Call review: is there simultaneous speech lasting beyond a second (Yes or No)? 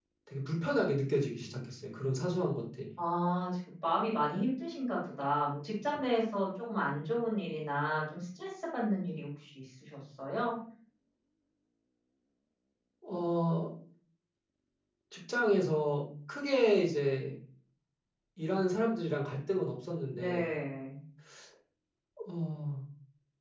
No